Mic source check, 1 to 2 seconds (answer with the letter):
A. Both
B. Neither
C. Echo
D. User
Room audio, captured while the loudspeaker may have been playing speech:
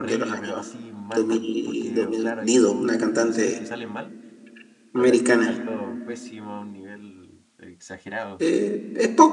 A